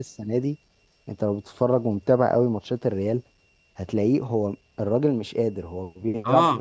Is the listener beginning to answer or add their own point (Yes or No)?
Yes